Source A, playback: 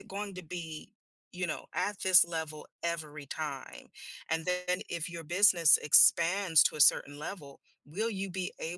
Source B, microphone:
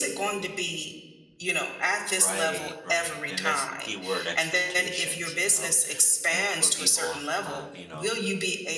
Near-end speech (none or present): present